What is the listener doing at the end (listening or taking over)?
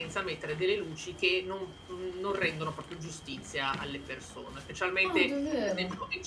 listening